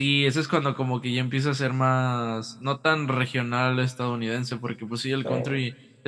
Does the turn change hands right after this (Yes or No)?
No